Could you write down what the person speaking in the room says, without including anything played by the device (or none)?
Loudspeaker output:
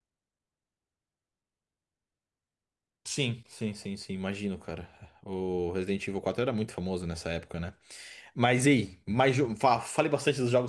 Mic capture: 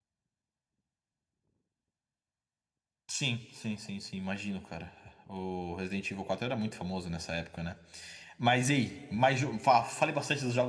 none